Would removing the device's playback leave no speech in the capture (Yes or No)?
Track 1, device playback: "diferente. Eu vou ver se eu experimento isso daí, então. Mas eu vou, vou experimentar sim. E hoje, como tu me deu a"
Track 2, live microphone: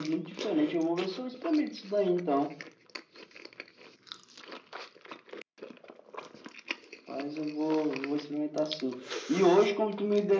Yes